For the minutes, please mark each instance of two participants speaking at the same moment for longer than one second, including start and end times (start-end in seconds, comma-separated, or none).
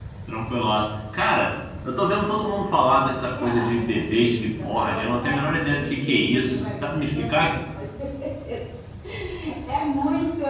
3.3-7.6